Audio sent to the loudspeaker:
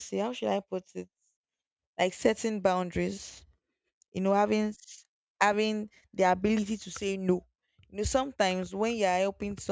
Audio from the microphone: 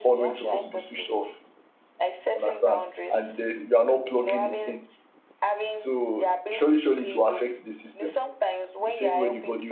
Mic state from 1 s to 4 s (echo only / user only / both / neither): both